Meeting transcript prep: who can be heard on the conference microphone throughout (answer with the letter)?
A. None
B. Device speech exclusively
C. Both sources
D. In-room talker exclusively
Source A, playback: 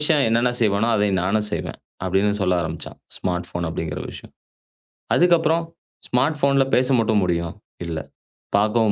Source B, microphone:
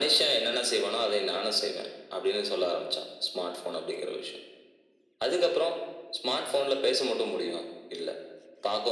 B